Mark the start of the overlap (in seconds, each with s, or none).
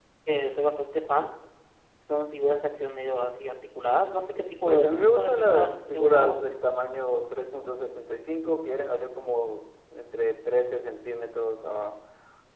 4.7 s